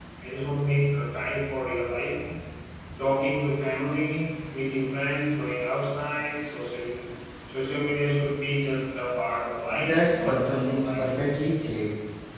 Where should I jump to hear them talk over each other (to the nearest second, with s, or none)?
10 s